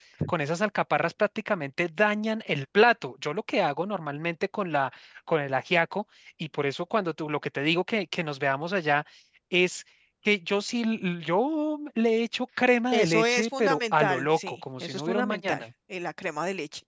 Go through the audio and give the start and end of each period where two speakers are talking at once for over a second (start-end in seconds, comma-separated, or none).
12.9-15.6